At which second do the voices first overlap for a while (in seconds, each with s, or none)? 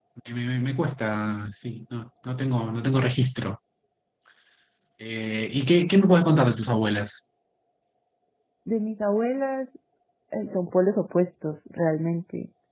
none